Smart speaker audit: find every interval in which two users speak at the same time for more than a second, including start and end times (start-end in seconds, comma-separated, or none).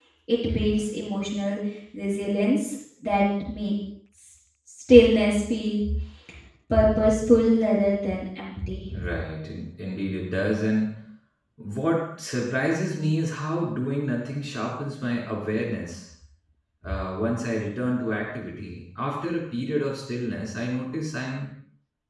none